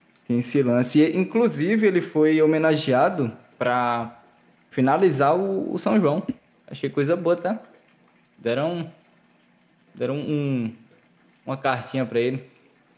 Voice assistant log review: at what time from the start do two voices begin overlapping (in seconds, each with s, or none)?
none